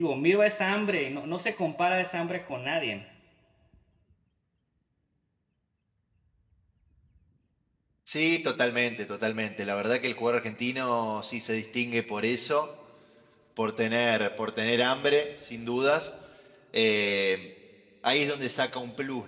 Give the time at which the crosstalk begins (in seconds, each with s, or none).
none